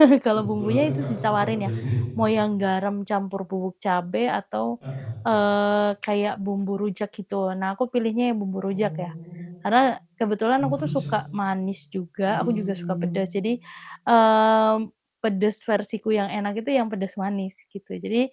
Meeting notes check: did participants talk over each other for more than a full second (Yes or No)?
Yes